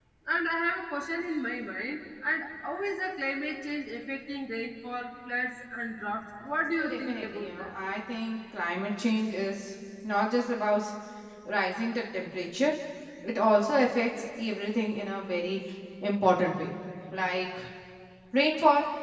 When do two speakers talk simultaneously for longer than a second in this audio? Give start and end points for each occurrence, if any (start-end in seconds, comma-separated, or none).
6.4-7.7